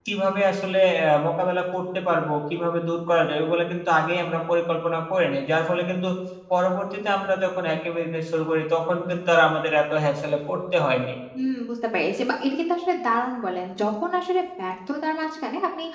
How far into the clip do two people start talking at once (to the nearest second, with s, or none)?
none